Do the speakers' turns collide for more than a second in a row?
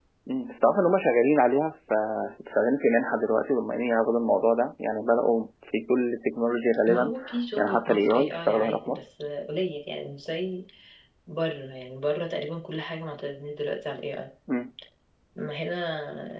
Yes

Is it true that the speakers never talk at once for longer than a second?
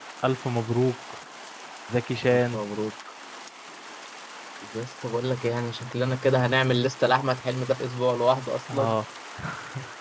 Yes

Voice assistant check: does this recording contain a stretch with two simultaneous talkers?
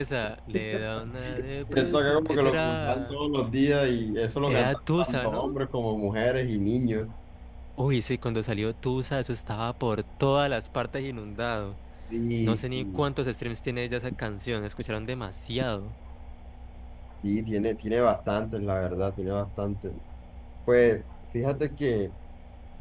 Yes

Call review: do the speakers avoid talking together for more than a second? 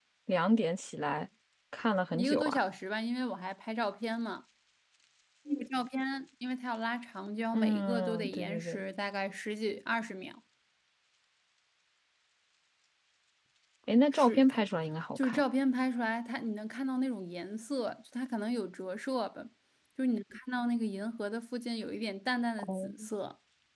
No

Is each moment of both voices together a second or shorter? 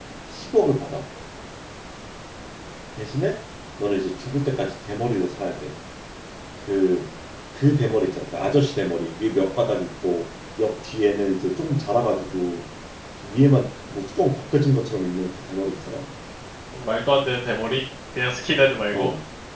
Yes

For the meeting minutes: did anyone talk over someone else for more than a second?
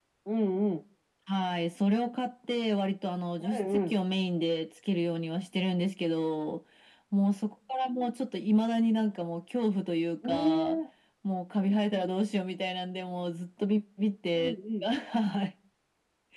No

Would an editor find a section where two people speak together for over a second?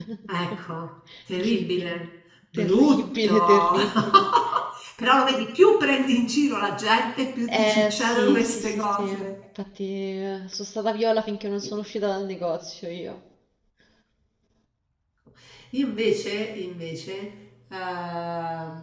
Yes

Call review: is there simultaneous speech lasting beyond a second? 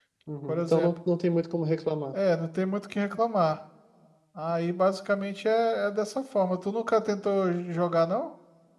No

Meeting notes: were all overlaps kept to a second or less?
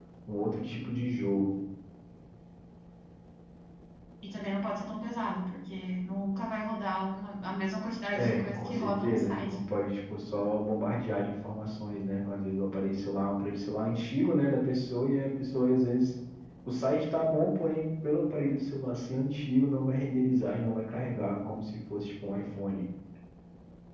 No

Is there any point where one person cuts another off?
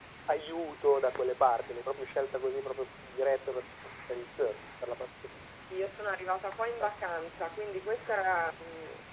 No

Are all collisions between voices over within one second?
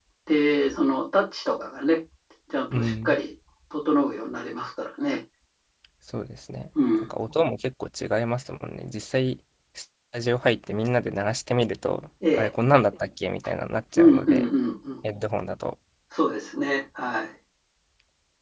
Yes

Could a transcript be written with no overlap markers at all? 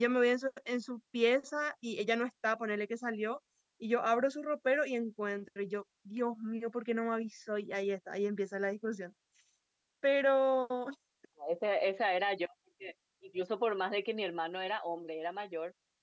Yes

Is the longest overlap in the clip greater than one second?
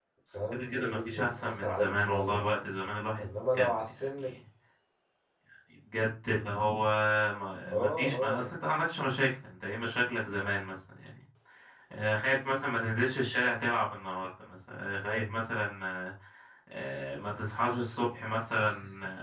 Yes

